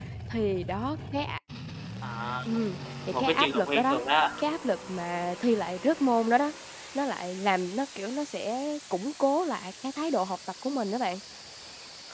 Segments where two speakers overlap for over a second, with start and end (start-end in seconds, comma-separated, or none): 2.8-4.0